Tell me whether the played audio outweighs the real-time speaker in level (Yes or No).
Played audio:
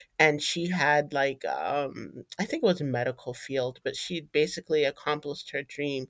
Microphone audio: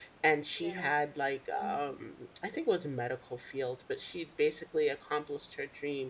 Yes